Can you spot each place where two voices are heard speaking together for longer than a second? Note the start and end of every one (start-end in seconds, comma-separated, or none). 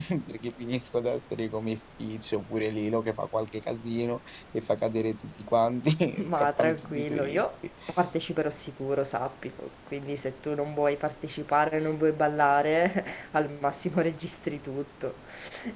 6.2-7.5